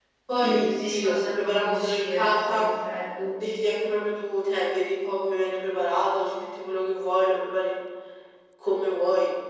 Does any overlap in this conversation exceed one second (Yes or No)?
Yes